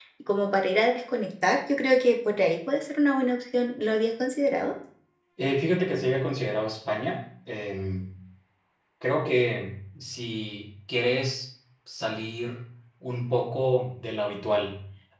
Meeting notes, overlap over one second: none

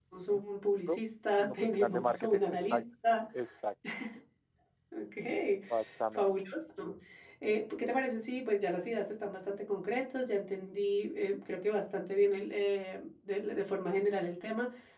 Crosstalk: present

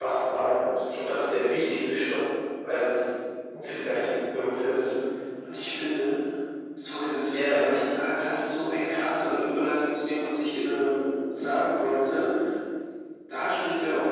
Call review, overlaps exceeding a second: none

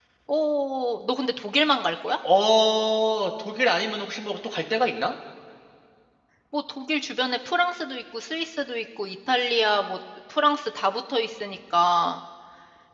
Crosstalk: none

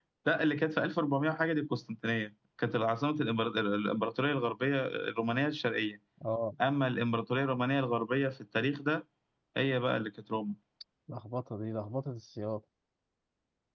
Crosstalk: none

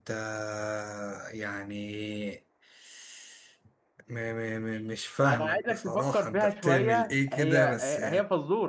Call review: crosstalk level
present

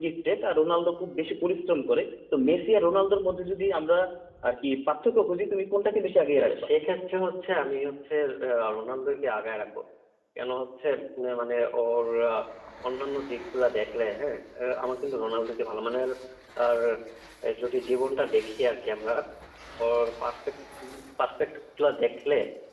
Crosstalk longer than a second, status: none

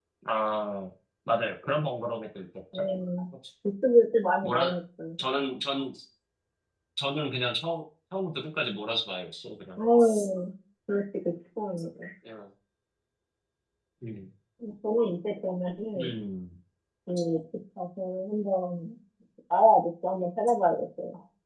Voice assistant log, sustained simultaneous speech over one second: none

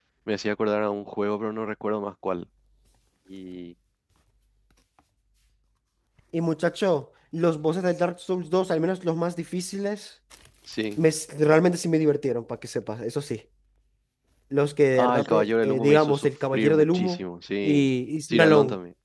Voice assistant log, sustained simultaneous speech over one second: present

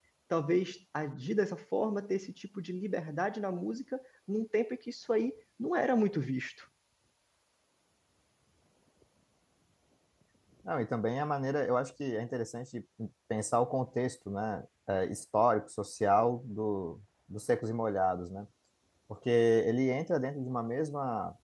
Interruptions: none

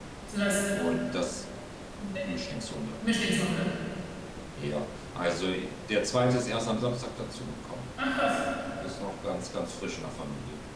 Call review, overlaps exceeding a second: none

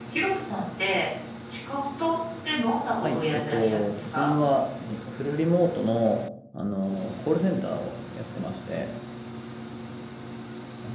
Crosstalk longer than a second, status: present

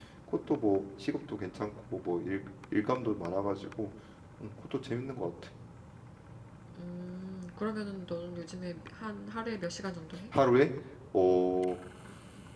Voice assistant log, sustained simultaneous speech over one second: none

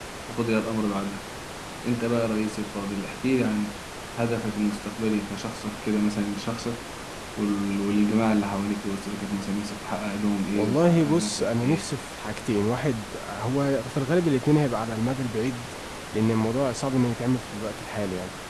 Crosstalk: present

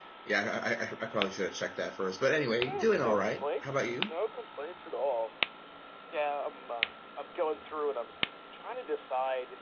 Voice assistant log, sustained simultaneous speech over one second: present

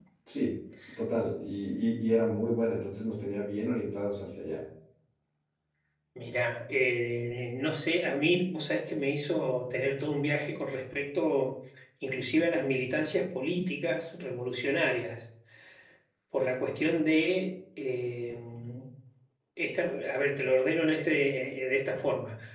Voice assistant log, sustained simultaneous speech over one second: none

